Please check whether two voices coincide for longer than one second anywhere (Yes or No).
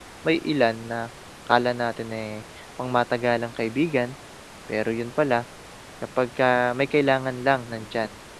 No